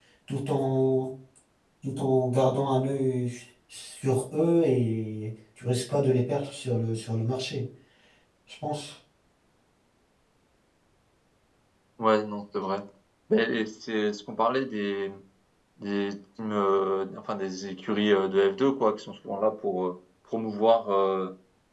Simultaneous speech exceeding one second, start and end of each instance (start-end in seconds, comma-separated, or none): none